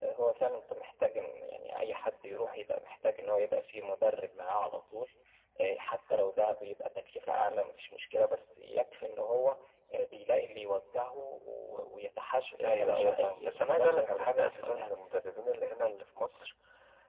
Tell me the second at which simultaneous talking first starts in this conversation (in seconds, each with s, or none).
12.6 s